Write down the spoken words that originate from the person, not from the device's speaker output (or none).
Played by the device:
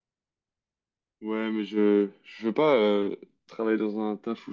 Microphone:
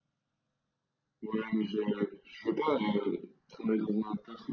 none